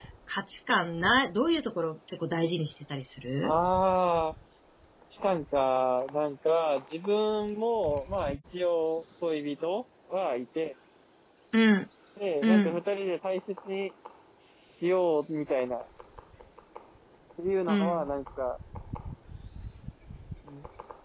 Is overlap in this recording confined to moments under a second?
Yes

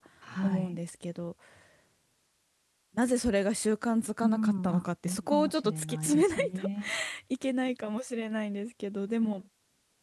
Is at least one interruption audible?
Yes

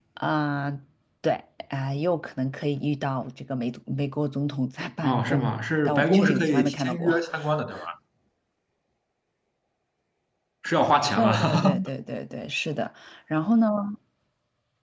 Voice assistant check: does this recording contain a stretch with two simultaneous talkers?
Yes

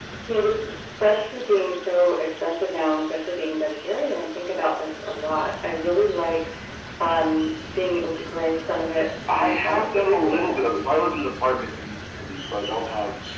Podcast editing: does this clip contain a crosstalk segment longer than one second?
Yes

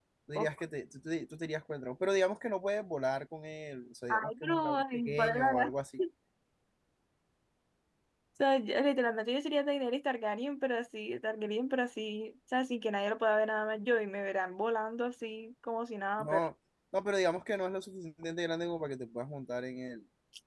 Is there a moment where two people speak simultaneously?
Yes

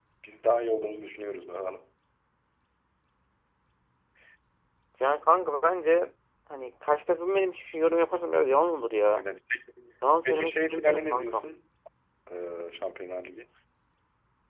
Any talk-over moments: Yes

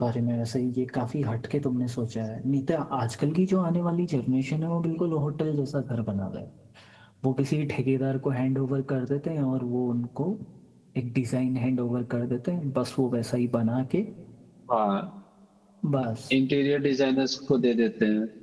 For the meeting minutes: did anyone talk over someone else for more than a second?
No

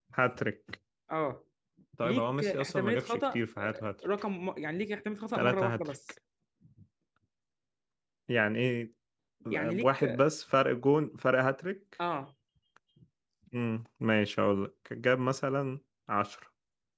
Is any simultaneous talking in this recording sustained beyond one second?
Yes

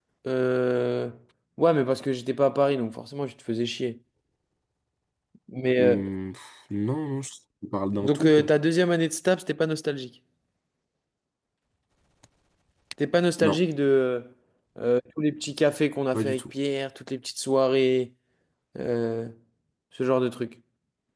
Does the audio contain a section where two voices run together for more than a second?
No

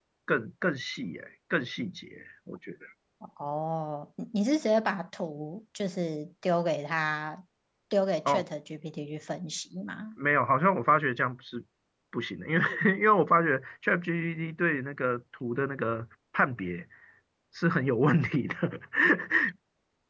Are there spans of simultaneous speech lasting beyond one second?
No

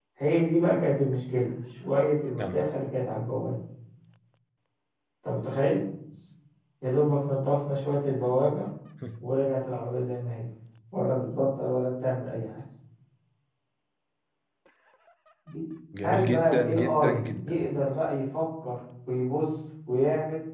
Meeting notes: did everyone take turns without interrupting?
No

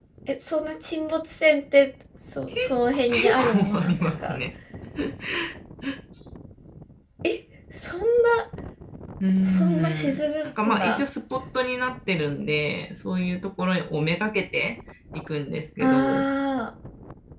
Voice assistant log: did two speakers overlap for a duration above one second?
Yes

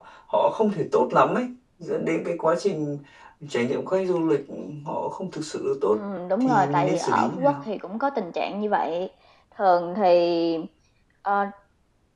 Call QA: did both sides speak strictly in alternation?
No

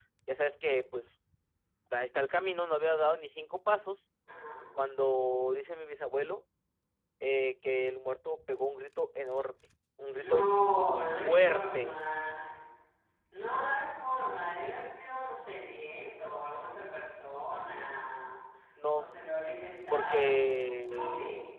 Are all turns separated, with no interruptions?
No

